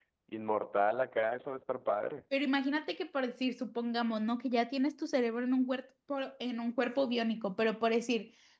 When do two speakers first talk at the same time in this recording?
none

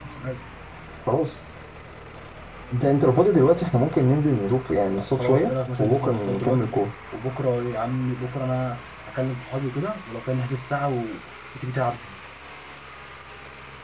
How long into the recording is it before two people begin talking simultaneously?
5.0 s

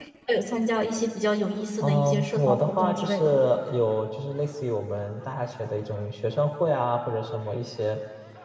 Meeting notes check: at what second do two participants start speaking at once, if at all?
1.8 s

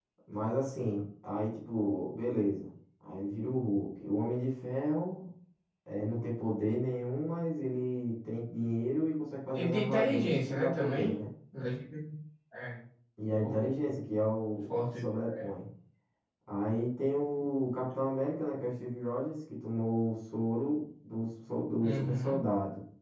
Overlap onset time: 9.5 s

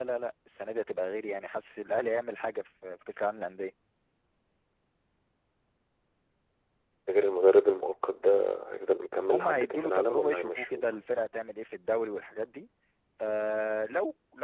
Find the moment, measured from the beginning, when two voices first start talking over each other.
9.3 s

